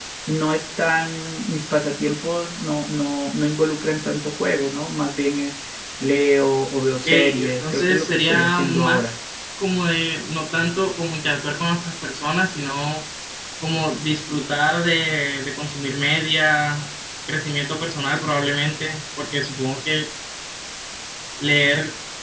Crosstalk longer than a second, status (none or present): present